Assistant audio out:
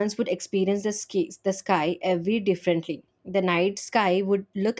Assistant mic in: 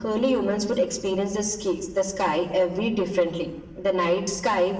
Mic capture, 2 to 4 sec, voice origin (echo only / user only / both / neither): echo only